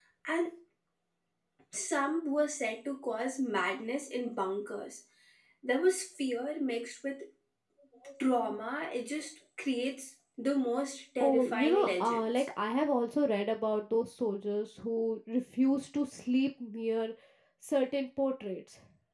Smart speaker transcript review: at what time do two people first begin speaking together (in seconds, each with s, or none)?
11.2 s